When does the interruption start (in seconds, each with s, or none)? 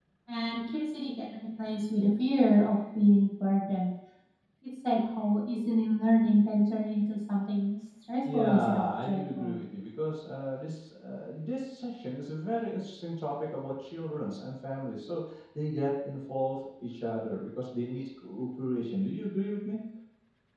8.2 s